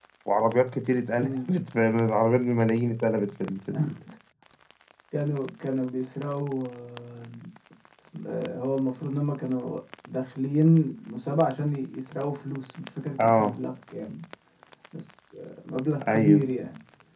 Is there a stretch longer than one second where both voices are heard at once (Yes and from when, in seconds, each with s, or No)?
No